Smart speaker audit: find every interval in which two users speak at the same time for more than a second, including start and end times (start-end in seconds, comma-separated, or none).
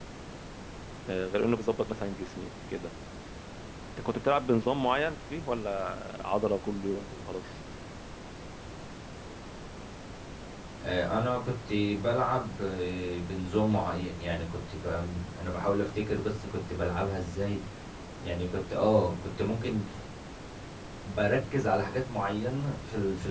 none